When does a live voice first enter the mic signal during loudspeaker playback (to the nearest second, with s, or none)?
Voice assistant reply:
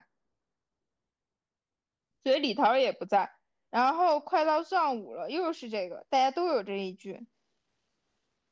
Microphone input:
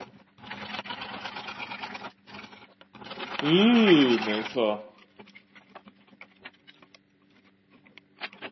3 s